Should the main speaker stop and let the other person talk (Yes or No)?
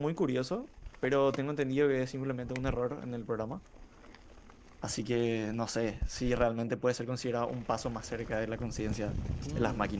Yes